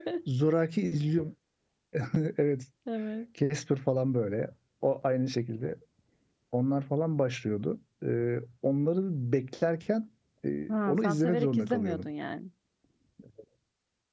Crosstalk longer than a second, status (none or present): present